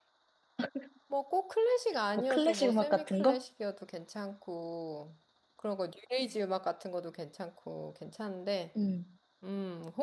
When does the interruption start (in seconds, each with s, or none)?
2.2 s